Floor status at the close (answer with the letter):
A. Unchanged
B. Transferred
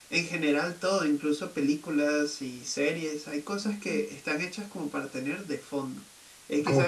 A